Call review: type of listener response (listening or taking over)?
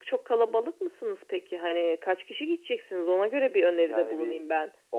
taking over